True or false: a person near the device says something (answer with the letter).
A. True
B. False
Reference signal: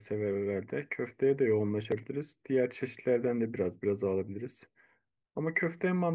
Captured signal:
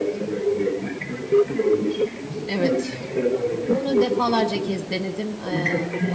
A